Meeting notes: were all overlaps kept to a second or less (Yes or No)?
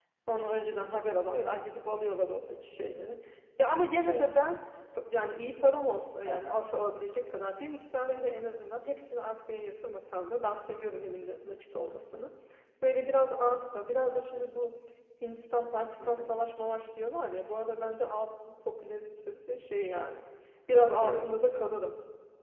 Yes